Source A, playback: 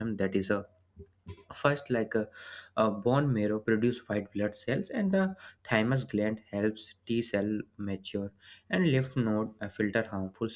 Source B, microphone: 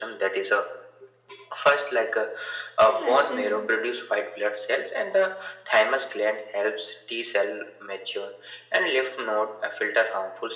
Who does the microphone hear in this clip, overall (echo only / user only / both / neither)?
both